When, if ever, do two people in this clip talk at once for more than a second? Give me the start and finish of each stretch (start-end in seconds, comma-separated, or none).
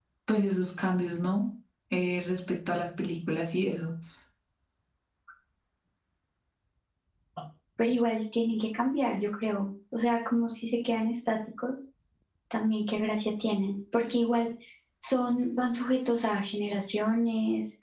none